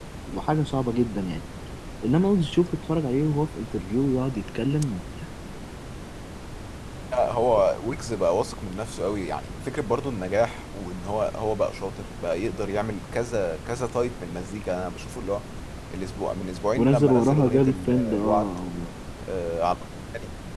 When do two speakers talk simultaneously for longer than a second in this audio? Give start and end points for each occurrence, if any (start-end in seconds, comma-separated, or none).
16.8-18.5